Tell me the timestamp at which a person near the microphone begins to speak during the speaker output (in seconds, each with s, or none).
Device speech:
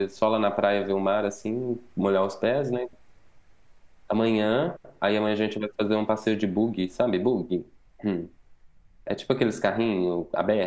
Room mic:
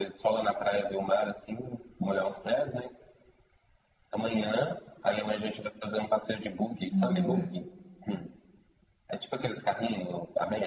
6.9 s